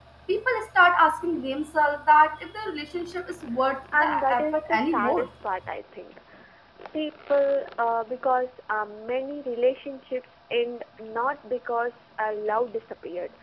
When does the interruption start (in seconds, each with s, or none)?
3.9 s